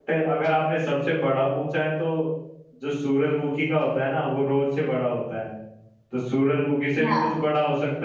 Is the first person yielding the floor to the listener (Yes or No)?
No